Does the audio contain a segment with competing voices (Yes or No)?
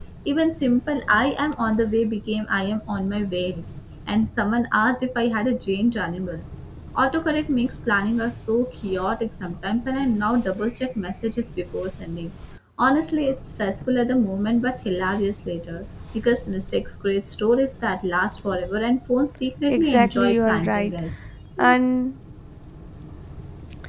Yes